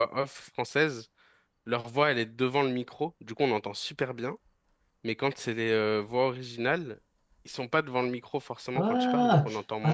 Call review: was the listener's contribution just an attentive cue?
No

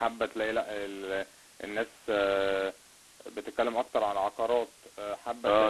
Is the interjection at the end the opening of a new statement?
Yes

